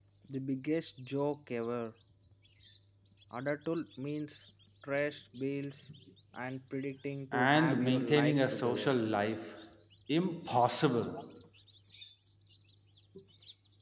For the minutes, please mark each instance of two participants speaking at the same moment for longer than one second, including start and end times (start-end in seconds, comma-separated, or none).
7.3-8.9